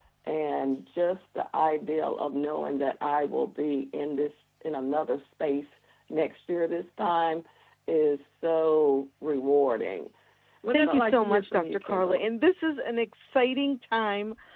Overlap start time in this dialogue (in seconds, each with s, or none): 10.7 s